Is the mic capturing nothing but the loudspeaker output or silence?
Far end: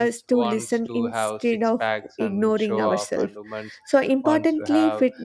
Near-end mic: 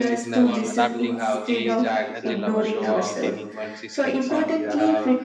No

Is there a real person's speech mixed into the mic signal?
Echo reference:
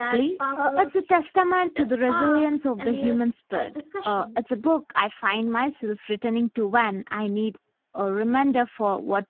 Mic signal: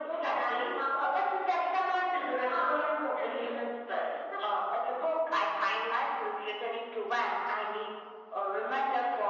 No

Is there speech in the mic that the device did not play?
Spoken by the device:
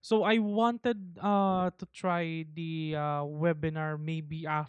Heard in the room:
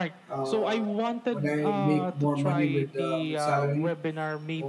Yes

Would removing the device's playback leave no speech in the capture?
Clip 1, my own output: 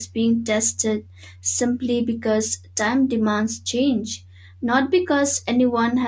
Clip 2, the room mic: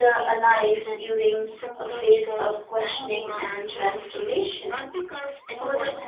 No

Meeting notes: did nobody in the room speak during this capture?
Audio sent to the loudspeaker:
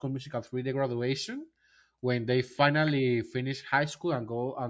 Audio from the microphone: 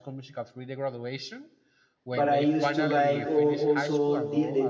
No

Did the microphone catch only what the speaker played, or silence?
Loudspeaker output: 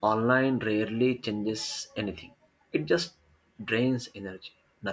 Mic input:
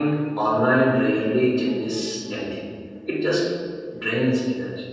Yes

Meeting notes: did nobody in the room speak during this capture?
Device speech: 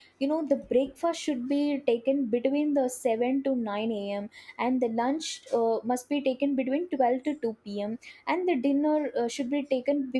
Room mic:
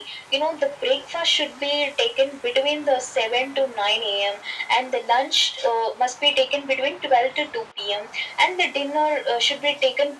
Yes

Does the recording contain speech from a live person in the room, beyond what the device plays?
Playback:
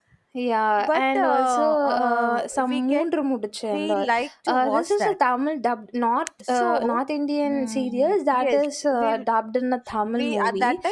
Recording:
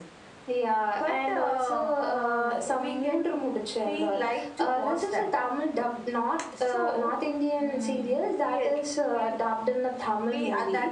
No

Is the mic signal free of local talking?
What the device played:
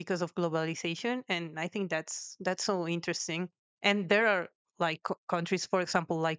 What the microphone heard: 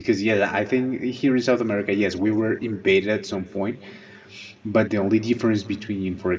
No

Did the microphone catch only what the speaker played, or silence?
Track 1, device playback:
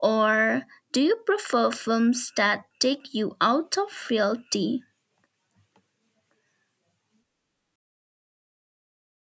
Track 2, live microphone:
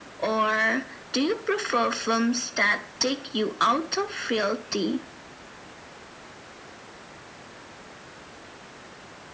Yes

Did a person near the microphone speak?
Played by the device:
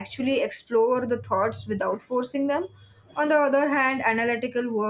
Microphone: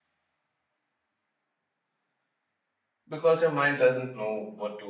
Yes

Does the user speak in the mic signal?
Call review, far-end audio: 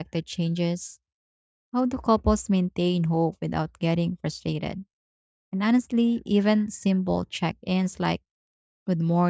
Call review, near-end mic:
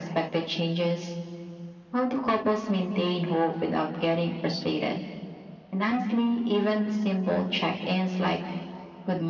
No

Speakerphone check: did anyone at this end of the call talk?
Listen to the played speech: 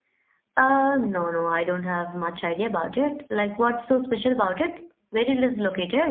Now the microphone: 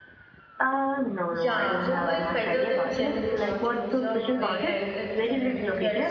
Yes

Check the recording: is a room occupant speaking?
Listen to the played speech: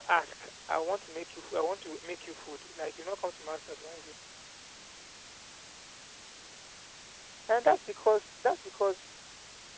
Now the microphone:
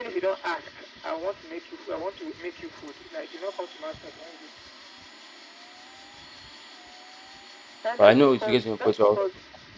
Yes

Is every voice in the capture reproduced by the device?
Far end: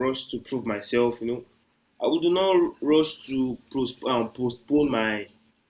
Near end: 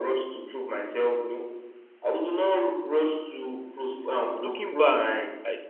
No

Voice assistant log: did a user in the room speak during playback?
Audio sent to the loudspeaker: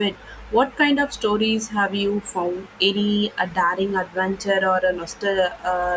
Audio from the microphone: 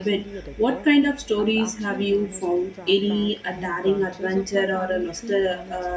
Yes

